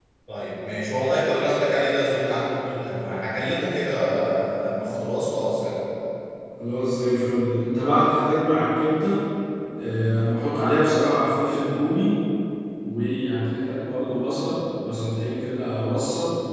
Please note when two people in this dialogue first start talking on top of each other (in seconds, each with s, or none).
none